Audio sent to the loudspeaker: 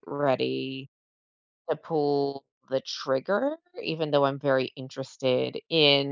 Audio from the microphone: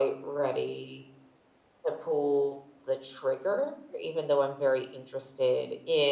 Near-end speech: none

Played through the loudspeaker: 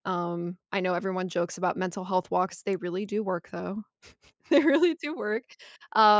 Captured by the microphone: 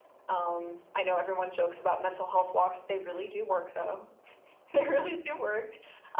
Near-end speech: none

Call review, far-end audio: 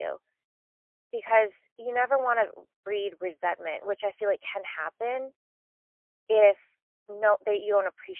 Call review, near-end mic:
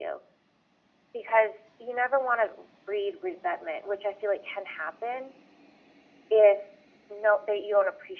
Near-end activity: none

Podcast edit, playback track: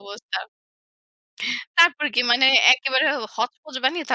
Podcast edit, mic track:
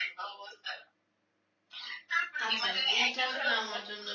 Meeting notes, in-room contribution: present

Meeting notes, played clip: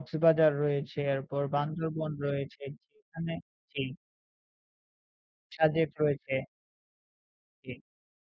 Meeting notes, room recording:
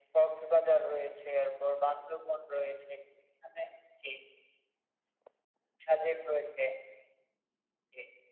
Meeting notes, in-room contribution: none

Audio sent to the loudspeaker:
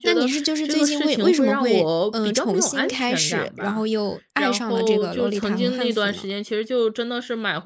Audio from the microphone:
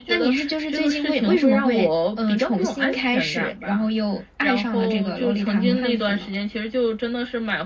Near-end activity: none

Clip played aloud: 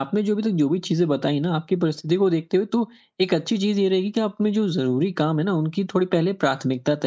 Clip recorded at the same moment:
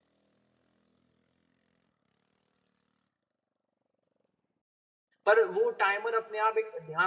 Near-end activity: present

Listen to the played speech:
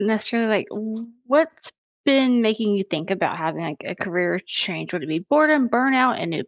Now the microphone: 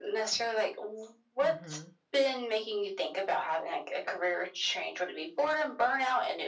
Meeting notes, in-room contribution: present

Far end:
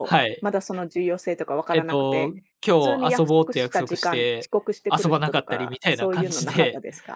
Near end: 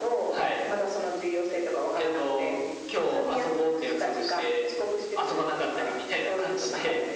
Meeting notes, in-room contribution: none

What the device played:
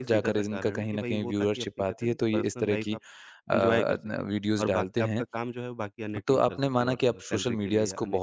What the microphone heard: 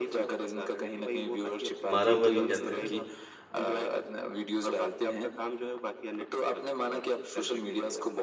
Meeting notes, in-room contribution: present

